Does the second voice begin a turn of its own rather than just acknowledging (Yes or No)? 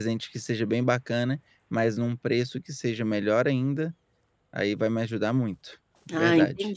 Yes